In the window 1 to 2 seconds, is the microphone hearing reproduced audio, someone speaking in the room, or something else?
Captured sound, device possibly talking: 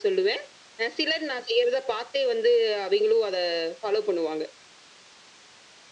echo only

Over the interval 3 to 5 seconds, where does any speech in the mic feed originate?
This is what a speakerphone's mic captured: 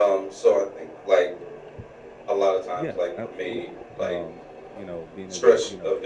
both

